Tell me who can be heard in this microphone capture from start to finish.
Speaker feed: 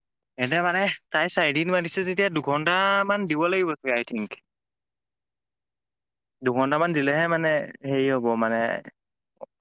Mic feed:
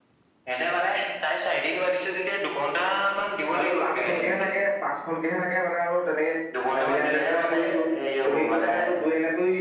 both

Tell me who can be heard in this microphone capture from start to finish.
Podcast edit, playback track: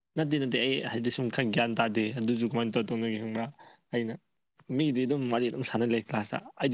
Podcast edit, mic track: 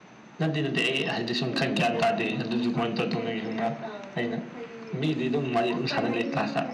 both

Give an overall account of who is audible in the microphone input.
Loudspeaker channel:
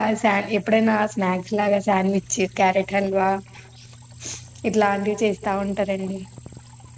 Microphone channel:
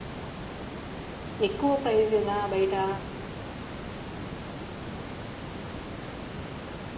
user only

